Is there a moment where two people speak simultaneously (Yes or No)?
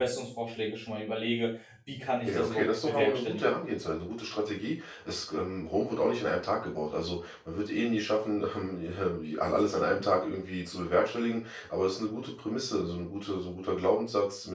Yes